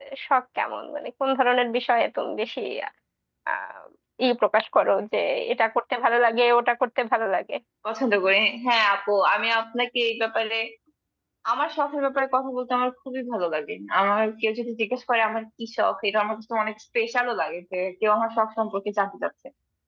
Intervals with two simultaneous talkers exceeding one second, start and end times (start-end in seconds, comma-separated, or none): none